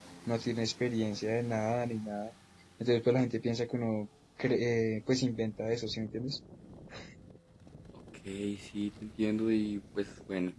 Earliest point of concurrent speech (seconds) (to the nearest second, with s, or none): none